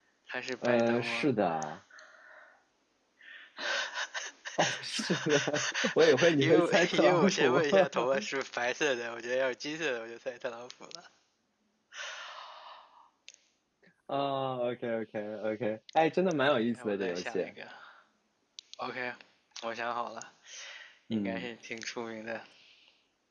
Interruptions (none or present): present